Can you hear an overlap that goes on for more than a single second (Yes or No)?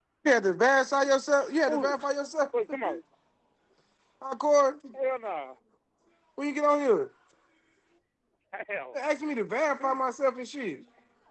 No